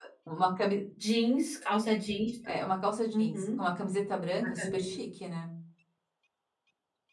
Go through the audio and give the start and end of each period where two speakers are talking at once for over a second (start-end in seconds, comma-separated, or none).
none